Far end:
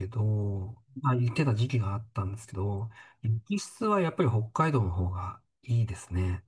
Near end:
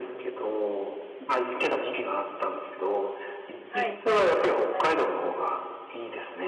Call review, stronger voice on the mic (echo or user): echo